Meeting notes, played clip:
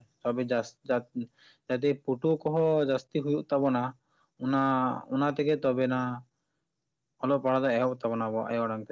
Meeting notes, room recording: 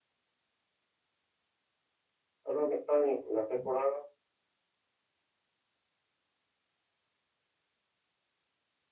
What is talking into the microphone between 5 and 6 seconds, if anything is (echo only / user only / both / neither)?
neither